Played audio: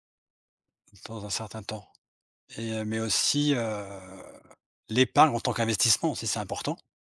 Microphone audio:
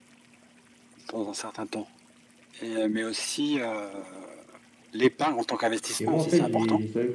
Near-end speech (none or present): present